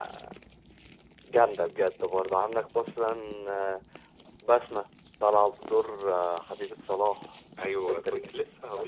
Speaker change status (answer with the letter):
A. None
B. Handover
B